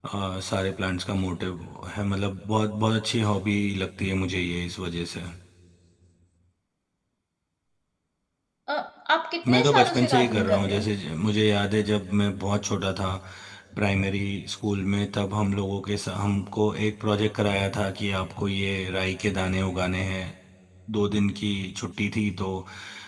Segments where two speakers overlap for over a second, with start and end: 9.5-10.8

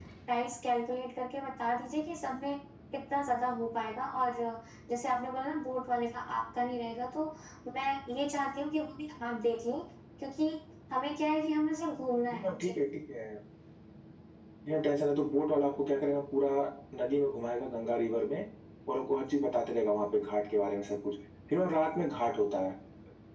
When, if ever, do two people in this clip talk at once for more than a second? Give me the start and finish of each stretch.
none

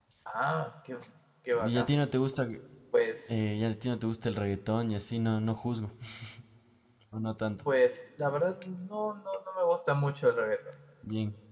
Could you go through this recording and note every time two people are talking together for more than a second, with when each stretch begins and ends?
none

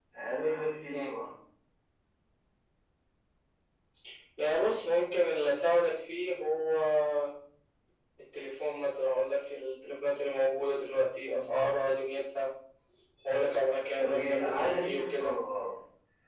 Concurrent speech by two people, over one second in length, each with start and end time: 14.0-15.2

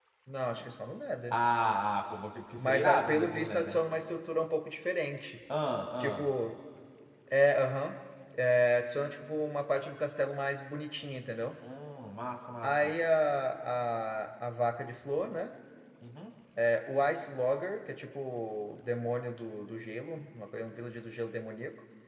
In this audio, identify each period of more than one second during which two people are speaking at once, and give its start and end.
2.6-3.8

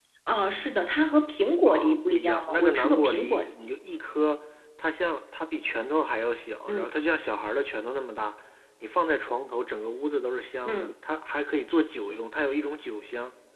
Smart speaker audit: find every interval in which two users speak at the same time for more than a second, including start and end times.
1.7-3.5

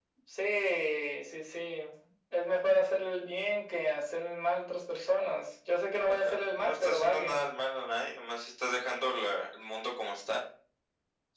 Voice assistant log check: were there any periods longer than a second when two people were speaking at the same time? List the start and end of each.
6.0-7.4

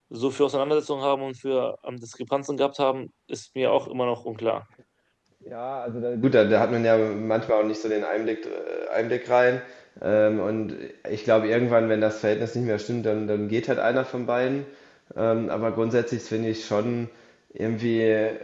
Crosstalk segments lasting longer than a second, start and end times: none

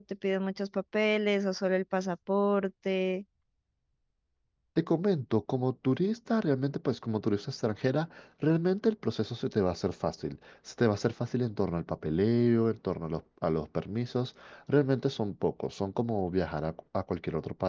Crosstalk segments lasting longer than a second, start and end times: none

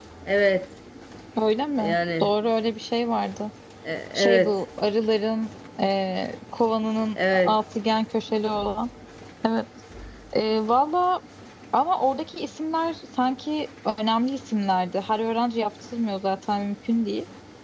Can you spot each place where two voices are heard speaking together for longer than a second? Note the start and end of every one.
none

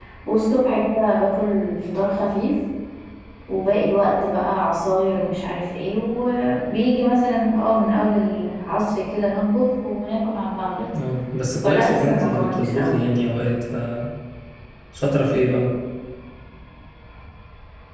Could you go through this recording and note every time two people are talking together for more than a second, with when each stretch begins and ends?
11.6-13.2

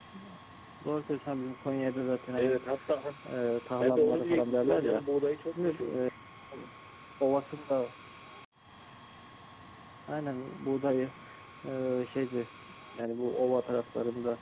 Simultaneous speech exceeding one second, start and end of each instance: 3.8-5.0

